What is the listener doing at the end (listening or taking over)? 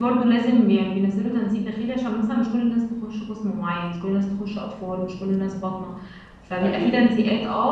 listening